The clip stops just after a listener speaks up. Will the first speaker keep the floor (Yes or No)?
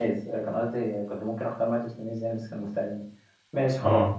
Yes